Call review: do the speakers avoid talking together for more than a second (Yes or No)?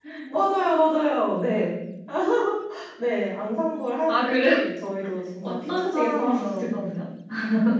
No